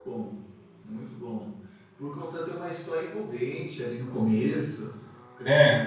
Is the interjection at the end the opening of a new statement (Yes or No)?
No